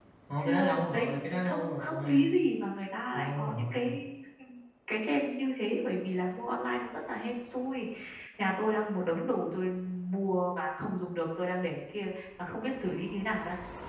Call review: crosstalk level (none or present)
present